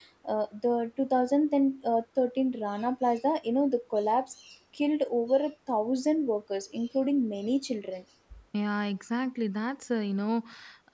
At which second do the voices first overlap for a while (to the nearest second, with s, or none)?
none